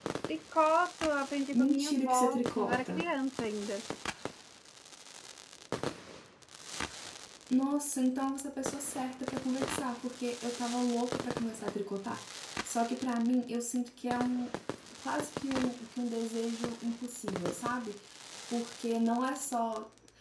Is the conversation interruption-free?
No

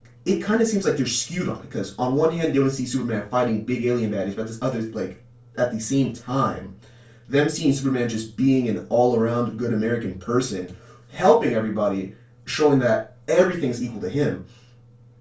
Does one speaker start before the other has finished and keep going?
No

